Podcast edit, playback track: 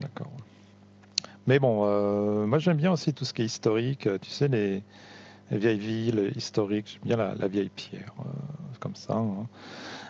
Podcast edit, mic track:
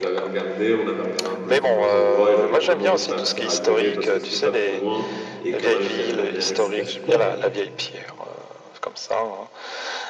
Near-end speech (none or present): present